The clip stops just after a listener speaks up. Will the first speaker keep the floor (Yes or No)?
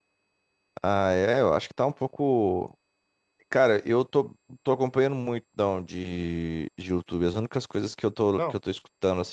Yes